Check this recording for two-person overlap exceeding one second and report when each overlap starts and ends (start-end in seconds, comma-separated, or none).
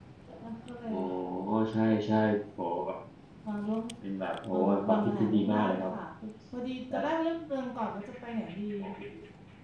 4.5-5.9